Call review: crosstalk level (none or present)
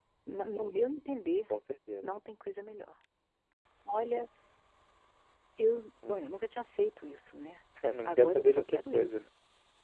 present